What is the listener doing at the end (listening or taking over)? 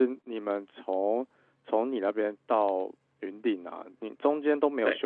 listening